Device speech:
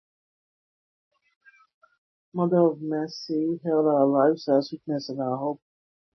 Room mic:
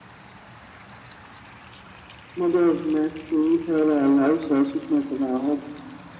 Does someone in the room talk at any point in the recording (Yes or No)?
No